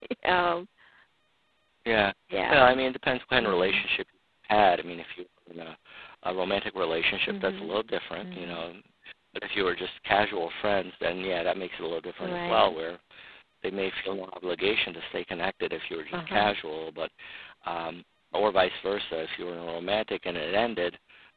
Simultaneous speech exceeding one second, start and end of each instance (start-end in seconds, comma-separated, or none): none